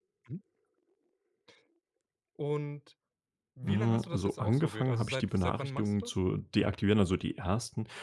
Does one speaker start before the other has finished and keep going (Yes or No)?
Yes